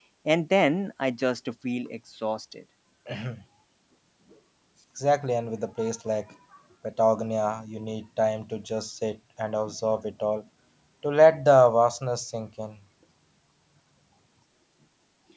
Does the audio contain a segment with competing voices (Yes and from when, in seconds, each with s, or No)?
No